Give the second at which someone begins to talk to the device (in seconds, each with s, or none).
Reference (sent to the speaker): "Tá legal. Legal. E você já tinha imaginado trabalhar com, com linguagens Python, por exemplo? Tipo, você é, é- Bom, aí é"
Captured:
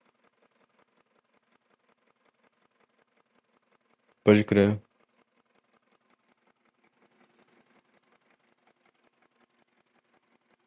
4.2 s